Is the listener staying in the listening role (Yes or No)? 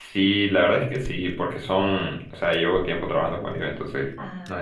Yes